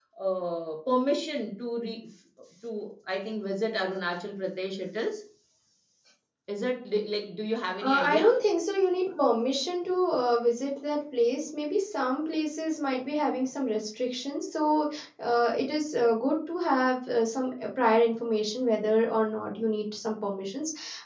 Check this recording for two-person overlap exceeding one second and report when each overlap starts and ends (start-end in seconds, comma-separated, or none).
none